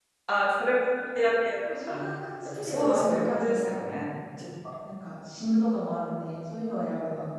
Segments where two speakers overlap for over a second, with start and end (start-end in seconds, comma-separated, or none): 2.4-3.8